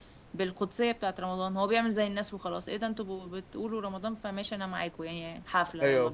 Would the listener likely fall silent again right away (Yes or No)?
No